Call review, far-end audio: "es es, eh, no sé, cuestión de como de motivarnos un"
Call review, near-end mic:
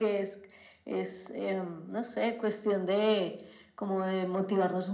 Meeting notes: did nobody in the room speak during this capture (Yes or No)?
Yes